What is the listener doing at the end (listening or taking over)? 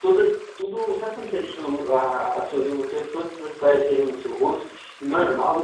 listening